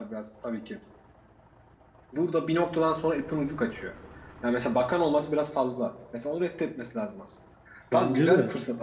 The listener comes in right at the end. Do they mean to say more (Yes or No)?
No